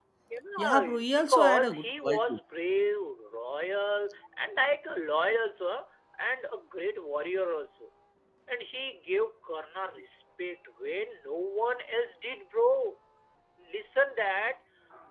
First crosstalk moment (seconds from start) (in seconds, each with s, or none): 0.6 s